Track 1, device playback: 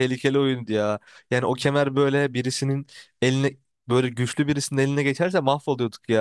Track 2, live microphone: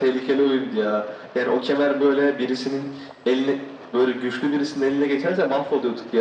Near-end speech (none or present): none